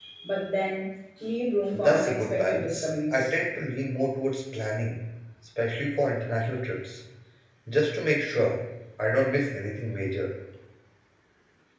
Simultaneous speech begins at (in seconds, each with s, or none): 1.7 s